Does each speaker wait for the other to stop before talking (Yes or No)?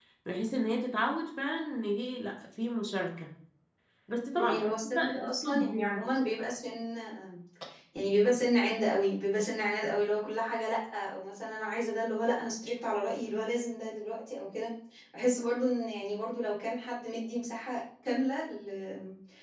No